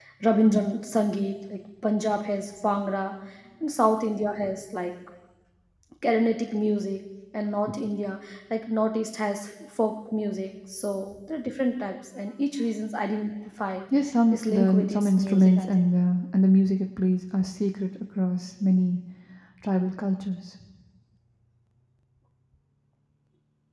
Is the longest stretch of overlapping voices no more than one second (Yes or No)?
No